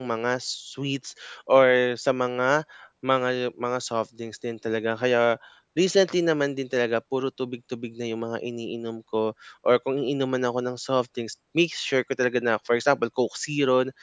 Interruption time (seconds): none

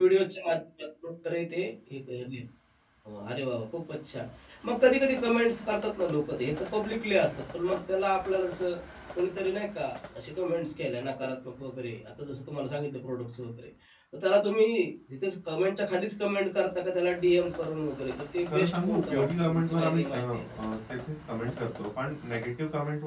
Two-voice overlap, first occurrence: 18.5 s

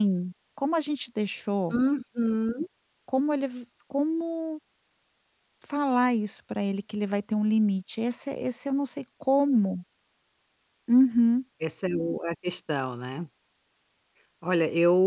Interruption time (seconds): none

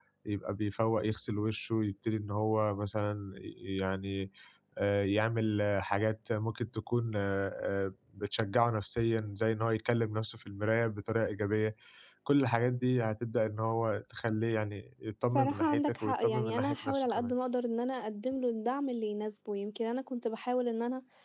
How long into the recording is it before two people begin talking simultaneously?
15.3 s

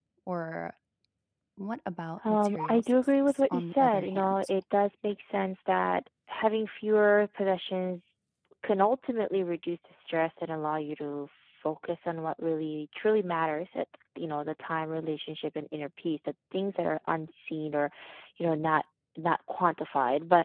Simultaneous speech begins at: 2.3 s

